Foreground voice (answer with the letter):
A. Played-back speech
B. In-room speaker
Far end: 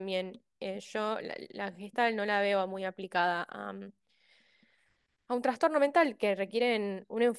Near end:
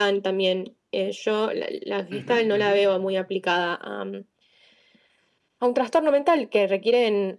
A